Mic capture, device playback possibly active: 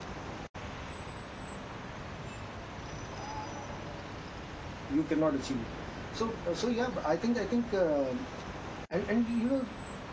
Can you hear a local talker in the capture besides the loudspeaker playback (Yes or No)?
Yes